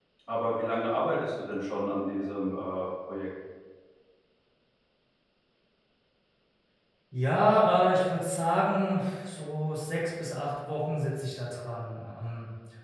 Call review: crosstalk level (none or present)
none